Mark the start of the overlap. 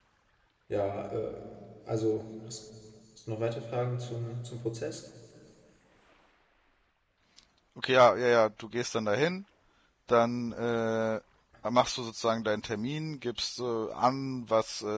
none

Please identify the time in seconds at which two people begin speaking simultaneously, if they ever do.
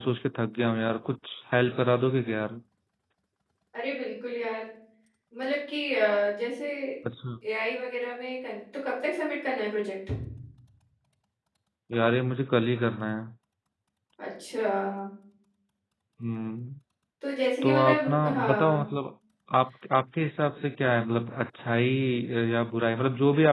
17.6 s

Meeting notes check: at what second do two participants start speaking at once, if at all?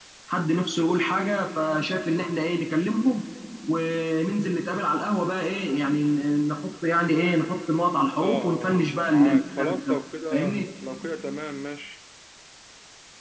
8.2 s

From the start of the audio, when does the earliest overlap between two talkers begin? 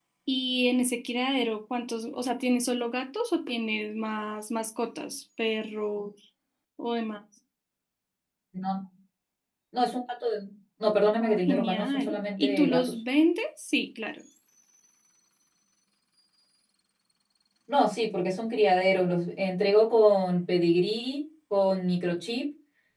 11.2 s

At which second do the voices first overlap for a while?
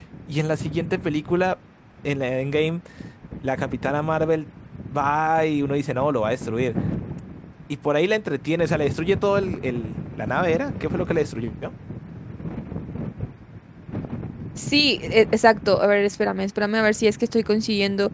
none

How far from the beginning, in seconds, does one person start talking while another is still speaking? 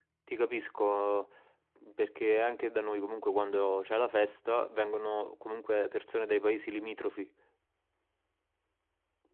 none

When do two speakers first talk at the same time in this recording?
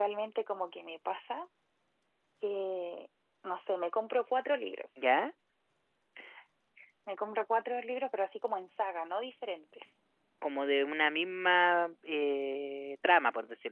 none

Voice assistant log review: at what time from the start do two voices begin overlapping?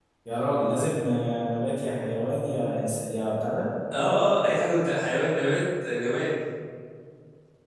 none

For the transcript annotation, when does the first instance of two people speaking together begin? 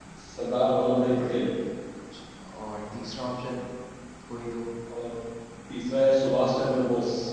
none

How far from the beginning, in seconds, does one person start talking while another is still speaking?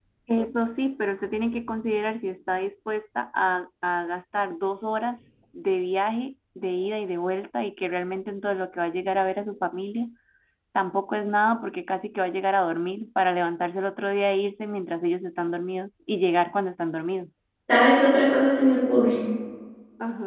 none

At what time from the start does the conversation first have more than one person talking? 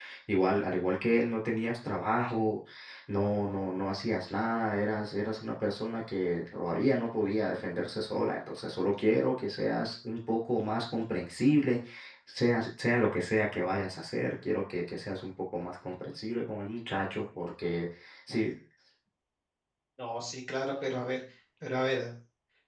none

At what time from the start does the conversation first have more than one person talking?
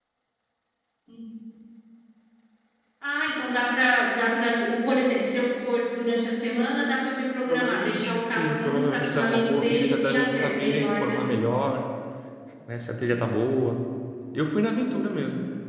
7.5 s

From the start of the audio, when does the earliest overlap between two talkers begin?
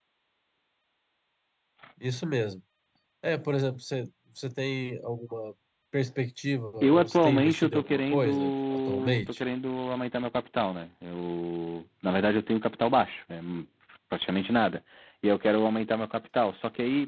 6.8 s

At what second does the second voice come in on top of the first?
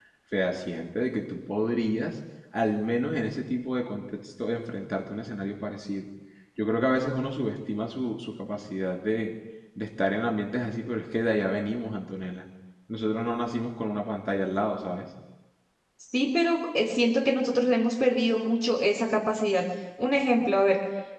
none

